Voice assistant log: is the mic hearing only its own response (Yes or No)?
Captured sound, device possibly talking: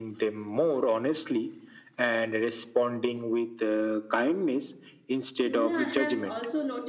No